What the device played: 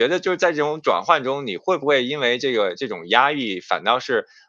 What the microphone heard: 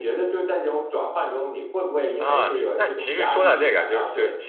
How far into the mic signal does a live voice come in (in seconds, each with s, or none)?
2.2 s